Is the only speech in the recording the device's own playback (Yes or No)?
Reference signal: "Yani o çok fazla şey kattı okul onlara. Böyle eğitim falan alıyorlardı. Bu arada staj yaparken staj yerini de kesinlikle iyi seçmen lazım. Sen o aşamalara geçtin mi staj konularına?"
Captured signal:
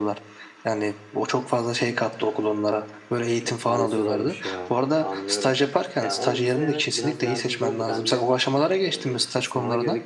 No